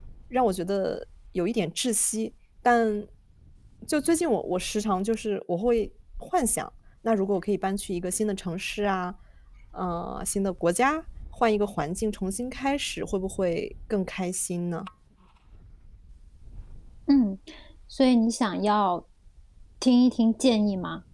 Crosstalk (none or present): none